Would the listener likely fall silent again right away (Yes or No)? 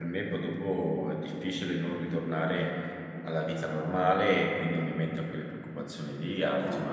Yes